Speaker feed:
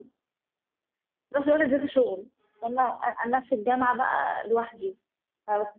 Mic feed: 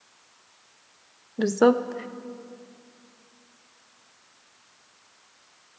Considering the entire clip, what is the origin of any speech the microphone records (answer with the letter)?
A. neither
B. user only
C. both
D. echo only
B